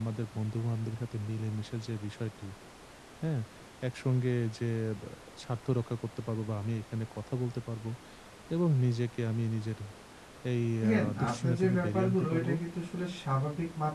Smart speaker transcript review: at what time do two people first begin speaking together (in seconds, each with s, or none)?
10.8 s